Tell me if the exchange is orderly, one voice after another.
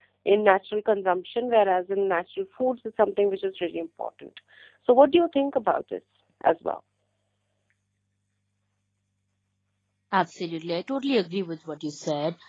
Yes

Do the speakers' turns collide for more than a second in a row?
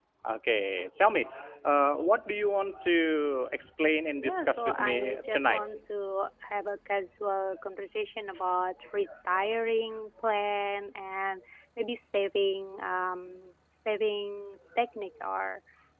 Yes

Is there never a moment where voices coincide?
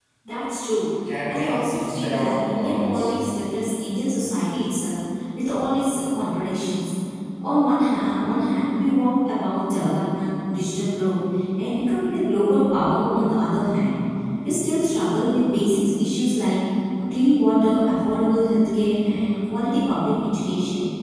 No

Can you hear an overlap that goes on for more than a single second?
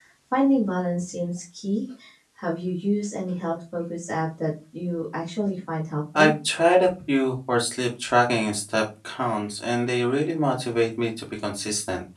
No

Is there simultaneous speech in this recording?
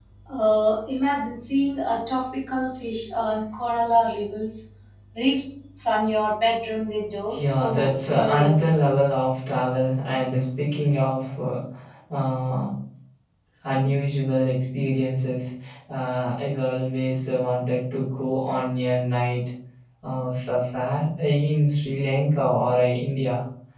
Yes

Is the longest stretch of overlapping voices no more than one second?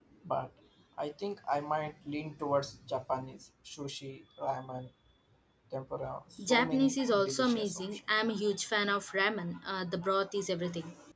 No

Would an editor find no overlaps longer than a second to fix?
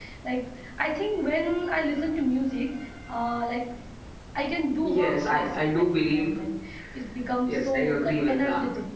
No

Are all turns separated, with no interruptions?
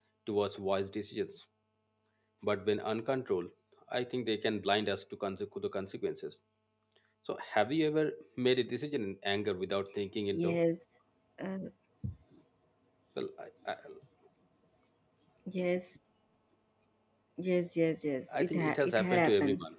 No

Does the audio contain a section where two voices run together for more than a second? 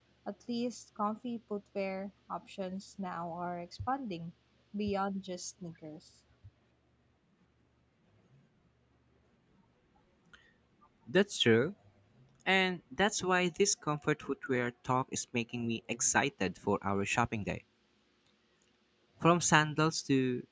No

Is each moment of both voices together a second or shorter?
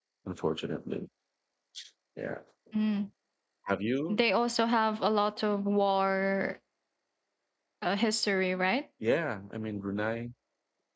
Yes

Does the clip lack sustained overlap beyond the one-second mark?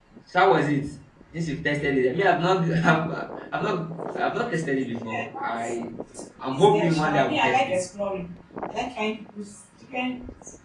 No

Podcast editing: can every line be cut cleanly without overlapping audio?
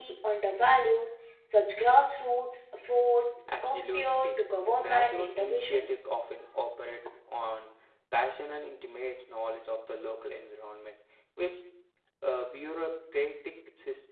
No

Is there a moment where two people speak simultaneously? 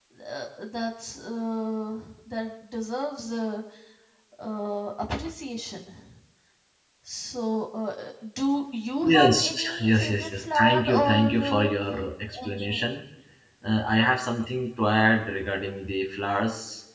Yes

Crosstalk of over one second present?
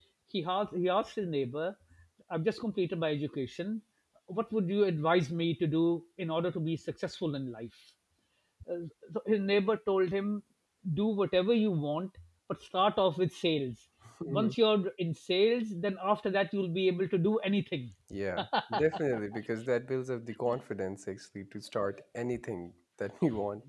No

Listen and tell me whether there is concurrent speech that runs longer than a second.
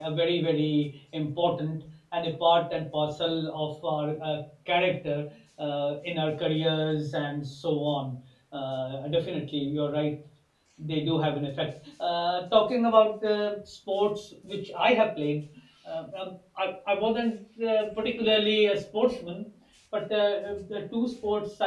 No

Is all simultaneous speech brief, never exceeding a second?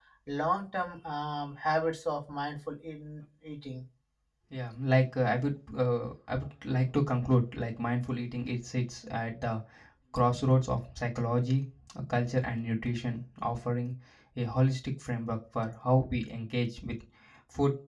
Yes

